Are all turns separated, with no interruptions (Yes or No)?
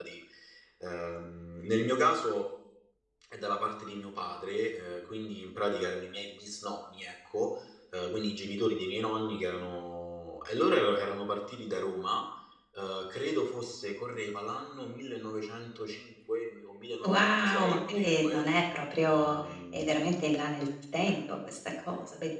No